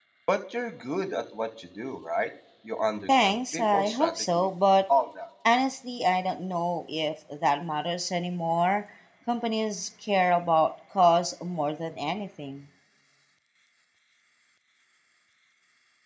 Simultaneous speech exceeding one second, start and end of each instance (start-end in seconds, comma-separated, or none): 3.1-4.5